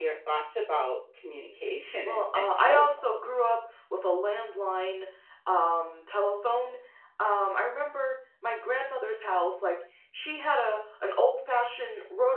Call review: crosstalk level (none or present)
present